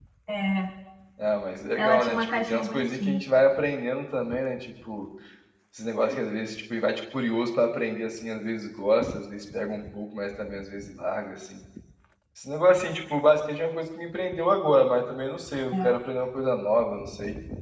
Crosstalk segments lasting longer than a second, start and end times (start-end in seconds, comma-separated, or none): 1.8-3.2